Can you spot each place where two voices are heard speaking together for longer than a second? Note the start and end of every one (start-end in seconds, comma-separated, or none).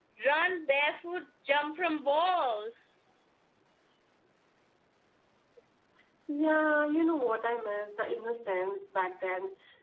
none